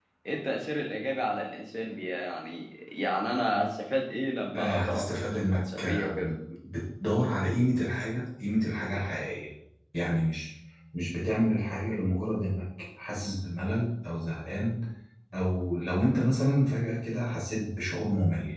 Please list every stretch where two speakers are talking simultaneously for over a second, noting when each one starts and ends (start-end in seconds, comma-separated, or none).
4.5-6.2